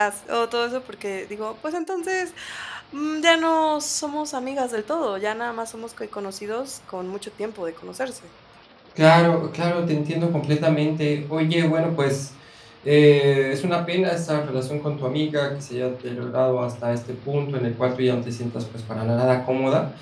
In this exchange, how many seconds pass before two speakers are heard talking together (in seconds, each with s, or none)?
none